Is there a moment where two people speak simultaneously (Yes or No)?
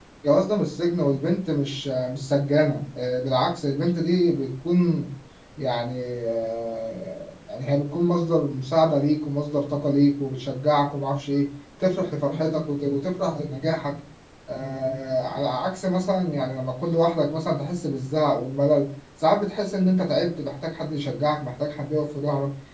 No